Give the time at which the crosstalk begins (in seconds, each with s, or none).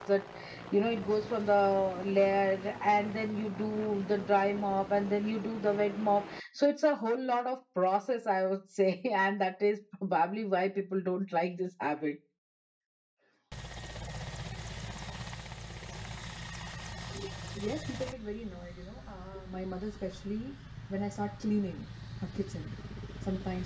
none